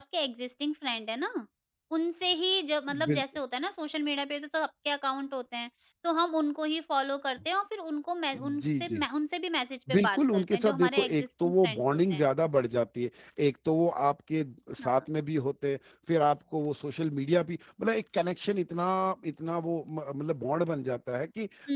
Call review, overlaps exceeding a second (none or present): present